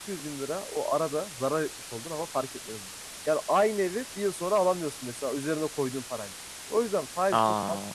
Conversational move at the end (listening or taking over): listening